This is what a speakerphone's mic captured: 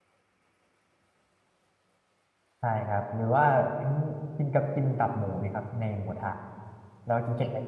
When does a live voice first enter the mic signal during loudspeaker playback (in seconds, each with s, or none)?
2.6 s